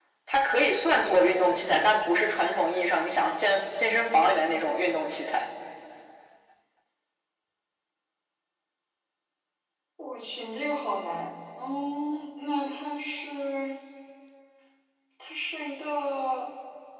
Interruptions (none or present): none